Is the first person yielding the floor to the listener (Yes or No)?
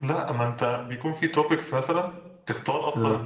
No